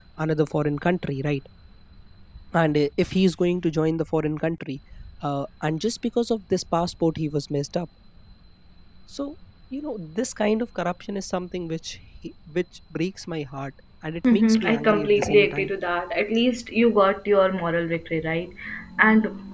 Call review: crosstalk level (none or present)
present